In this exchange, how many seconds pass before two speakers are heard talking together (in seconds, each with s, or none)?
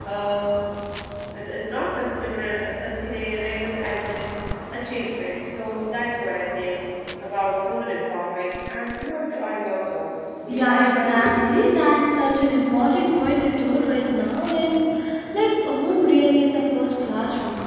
10.4 s